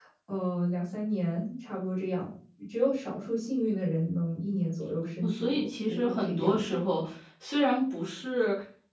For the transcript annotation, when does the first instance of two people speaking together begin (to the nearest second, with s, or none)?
5 s